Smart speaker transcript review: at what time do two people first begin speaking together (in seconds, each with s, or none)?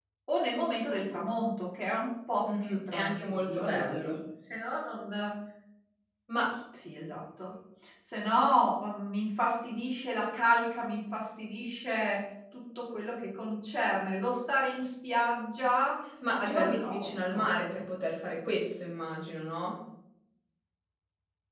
2.5 s